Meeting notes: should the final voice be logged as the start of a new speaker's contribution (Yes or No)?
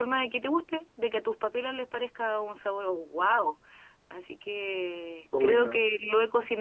No